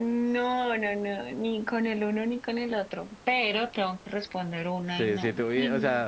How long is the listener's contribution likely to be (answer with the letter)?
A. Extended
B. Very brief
A